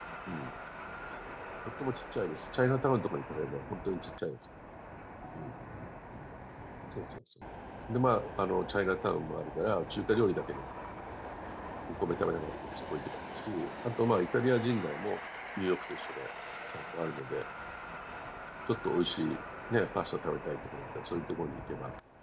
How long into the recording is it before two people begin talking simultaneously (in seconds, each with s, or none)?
none